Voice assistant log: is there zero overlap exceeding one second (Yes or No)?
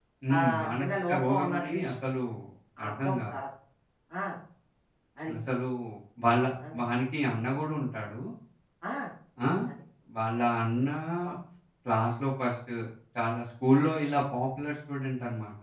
No